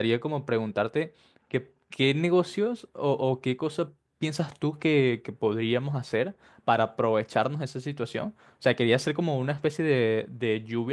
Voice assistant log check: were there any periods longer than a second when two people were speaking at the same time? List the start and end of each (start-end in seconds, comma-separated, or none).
none